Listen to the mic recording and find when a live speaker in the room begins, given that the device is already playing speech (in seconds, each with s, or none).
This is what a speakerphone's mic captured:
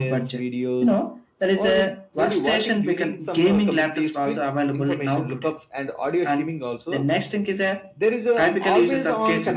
none